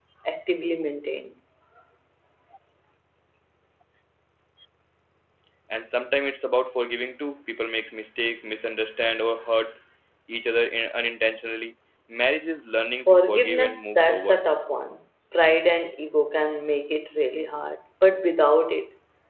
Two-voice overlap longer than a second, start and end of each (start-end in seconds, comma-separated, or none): 13.1-14.4